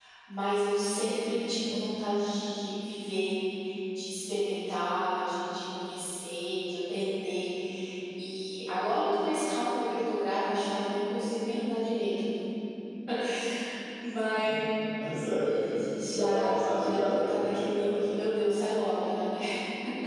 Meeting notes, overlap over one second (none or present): present